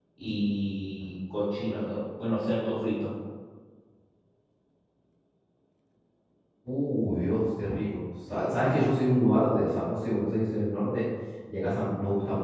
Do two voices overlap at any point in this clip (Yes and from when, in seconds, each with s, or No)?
No